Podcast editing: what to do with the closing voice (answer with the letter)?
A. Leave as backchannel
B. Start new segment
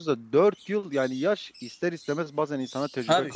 B